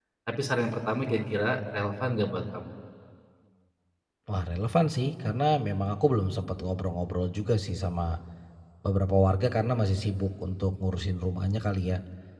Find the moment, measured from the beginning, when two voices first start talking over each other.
none

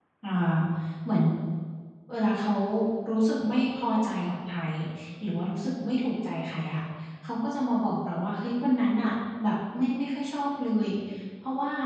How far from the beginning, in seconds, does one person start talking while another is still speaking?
none

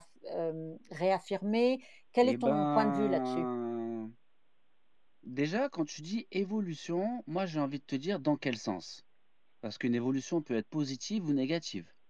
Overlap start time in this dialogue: 2.2 s

